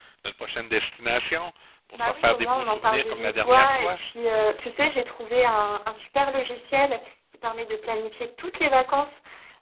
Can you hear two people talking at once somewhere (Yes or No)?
Yes